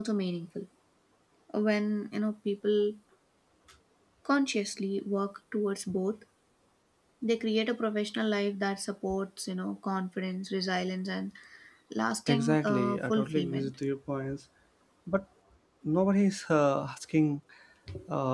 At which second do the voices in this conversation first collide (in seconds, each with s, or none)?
12.3 s